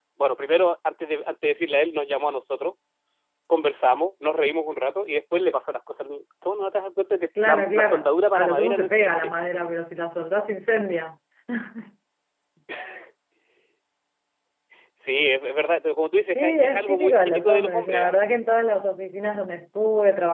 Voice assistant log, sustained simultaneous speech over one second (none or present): present